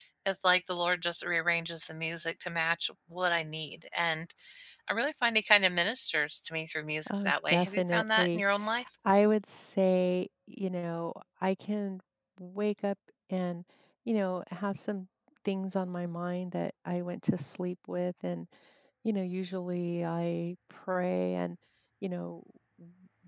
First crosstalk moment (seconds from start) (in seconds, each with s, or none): 7.1 s